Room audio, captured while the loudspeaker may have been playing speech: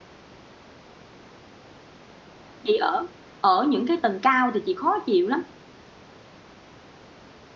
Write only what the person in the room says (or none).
chị ở ở những cái tầng cao thì chị khó chịu lắm